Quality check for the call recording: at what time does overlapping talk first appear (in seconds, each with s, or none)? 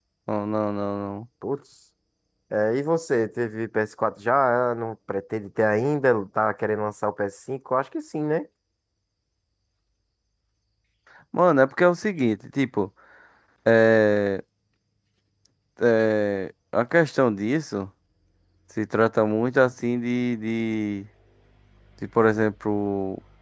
none